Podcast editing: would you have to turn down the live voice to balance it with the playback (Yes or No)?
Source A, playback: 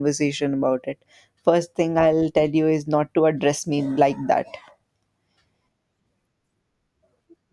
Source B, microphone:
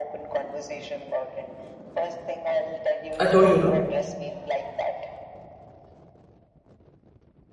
Yes